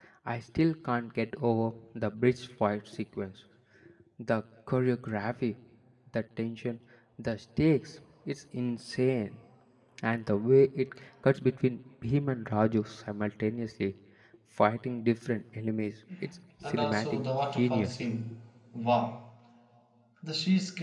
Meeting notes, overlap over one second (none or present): present